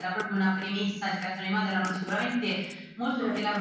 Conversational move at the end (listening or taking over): listening